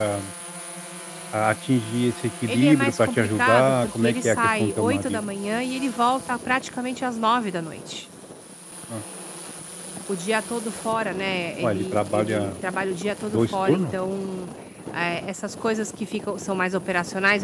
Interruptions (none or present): present